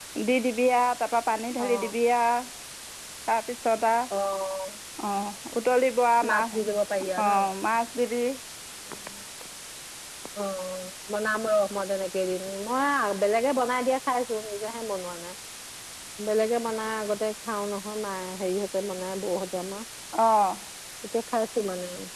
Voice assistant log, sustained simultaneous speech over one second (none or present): none